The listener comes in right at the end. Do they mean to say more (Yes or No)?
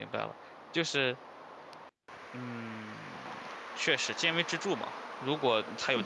No